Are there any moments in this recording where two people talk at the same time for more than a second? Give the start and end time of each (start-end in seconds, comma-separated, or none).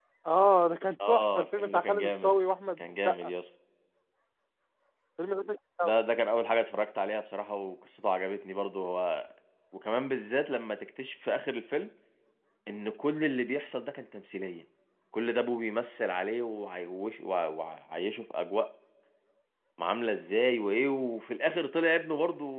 1.1-2.4